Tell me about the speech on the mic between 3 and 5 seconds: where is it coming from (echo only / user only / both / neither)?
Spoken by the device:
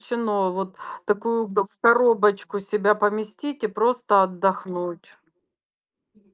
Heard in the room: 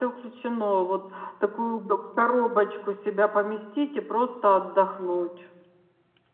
echo only